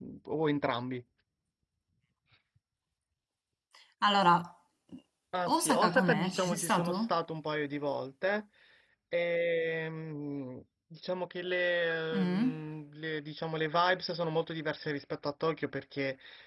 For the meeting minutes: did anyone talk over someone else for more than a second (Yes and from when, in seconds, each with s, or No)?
Yes, from 5.4 s